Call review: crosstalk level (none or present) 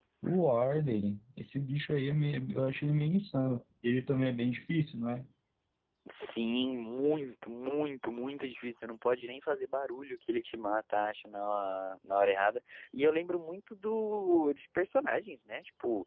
none